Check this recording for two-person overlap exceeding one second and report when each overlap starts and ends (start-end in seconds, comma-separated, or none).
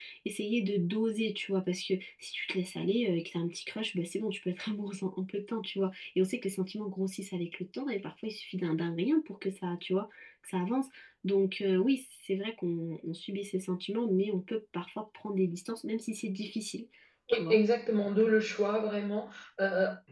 none